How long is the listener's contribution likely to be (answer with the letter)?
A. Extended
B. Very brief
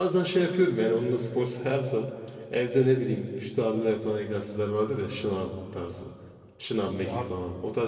B